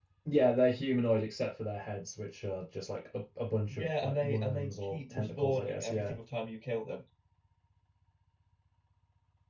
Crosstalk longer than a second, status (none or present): present